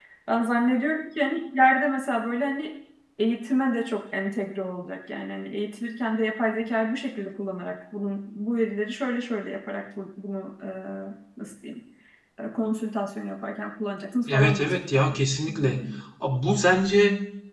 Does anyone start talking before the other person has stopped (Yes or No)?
Yes